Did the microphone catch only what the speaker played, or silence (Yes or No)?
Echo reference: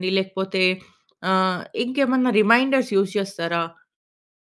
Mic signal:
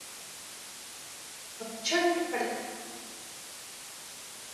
No